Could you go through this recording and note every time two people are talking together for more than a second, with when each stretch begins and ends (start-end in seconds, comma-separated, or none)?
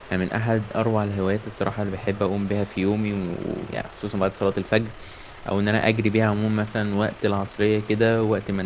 none